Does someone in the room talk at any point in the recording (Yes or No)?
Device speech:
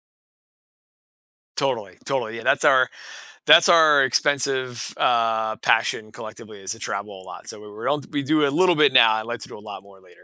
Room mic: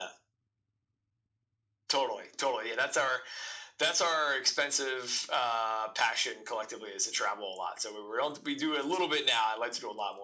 No